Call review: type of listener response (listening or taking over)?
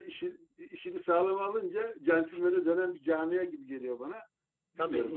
taking over